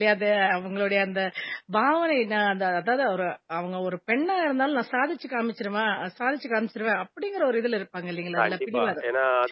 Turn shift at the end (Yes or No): Yes